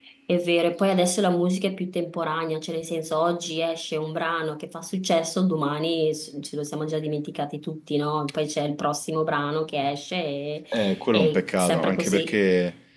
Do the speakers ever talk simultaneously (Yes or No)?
Yes